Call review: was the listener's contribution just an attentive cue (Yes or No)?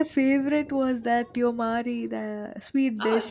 No